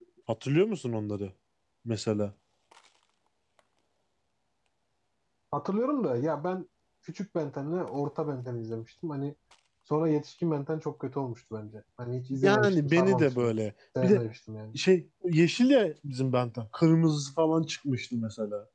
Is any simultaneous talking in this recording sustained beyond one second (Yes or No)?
Yes